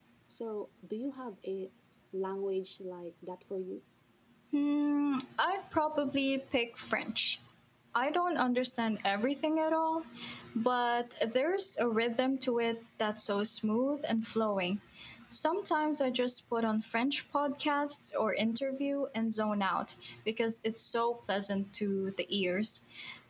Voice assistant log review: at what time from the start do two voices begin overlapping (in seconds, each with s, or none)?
none